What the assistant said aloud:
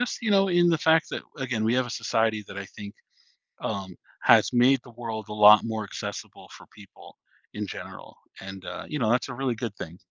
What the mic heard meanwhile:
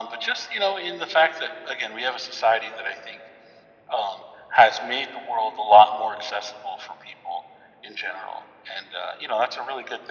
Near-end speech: none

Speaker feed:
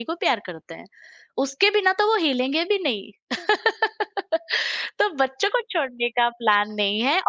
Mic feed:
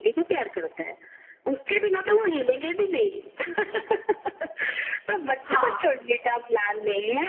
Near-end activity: present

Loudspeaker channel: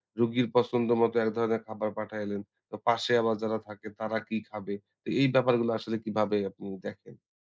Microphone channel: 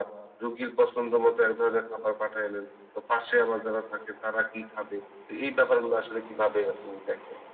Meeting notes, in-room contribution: none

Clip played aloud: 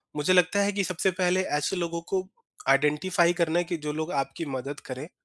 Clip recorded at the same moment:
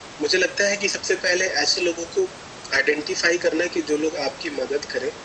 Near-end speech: none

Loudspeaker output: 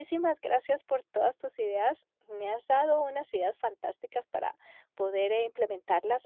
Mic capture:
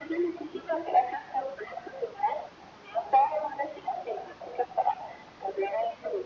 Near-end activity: none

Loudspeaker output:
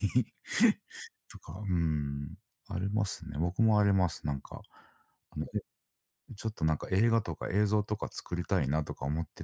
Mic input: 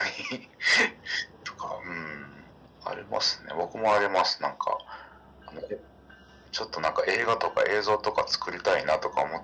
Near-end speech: none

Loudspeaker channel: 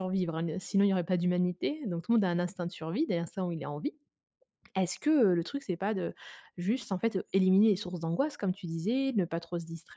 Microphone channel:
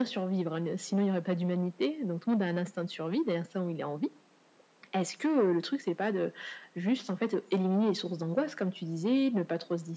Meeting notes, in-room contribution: none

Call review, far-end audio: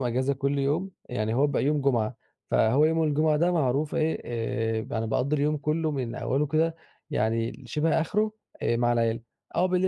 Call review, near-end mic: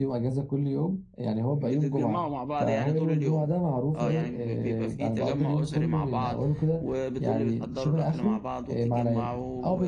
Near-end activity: present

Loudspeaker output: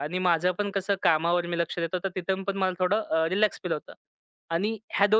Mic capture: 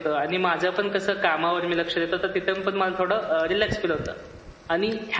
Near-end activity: none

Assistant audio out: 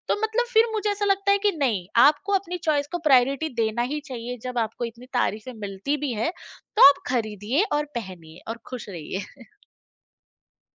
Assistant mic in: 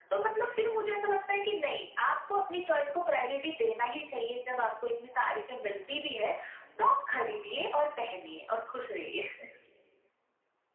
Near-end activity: none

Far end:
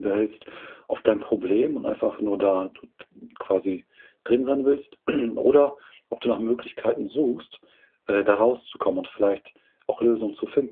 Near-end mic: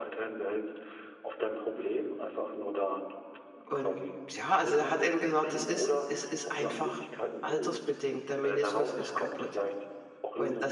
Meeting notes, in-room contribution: present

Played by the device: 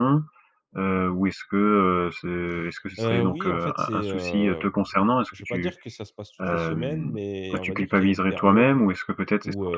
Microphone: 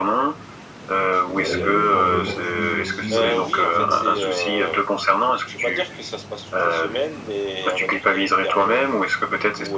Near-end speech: present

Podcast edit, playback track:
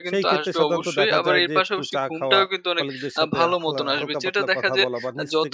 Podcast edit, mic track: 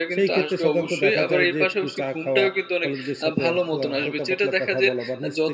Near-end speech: none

